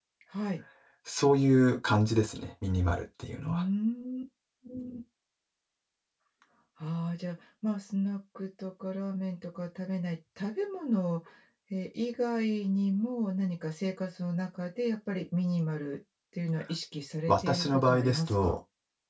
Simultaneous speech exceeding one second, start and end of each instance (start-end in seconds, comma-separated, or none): 17.3-18.6